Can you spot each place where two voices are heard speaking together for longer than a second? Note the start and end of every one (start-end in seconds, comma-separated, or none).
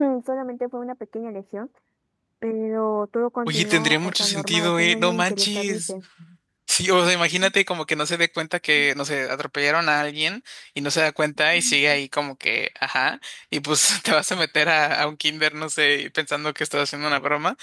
3.5-5.9